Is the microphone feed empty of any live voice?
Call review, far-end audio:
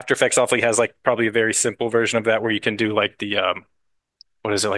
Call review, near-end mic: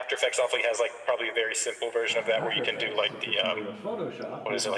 No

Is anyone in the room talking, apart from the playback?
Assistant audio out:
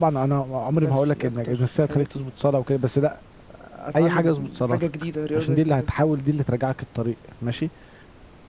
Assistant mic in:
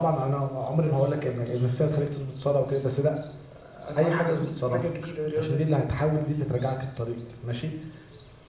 No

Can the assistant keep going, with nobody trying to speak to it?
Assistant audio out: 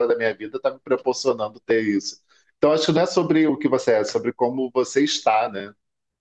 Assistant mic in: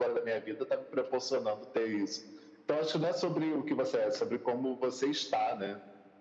Yes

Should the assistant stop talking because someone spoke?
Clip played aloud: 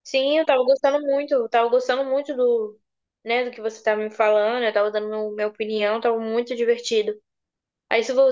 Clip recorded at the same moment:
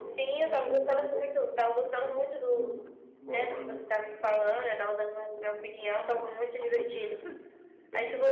Yes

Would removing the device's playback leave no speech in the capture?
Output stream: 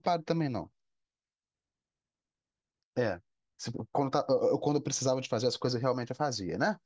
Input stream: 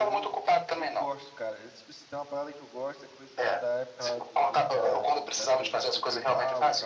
No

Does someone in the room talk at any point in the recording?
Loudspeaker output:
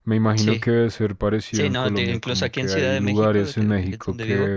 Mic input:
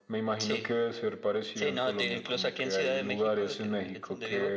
No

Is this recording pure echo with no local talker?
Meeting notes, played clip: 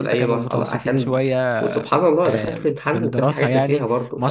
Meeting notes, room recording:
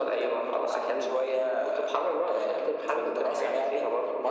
Yes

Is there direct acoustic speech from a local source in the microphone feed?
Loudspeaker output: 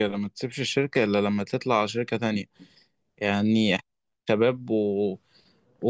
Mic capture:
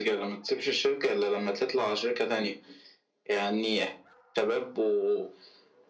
No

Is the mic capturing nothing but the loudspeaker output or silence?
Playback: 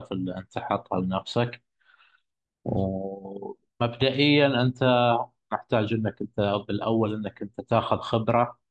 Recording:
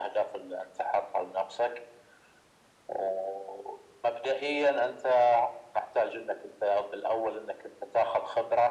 Yes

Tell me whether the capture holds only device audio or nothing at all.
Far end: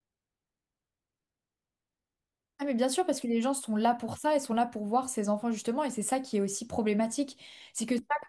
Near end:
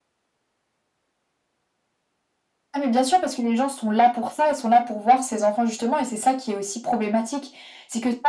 Yes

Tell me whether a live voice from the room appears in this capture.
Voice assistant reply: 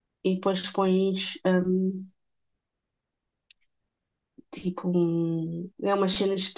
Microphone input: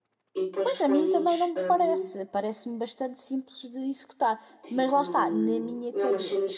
Yes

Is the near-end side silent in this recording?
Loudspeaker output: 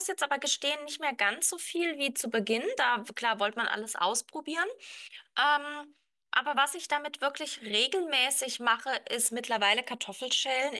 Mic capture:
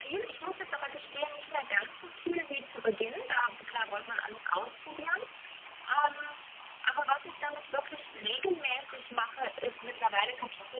Yes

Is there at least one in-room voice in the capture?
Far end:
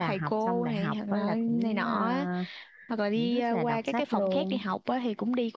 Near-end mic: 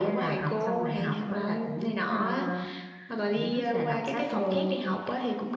No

